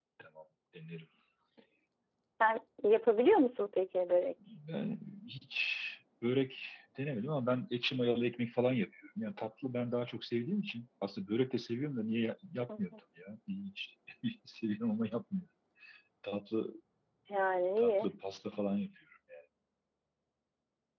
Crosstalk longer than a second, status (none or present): none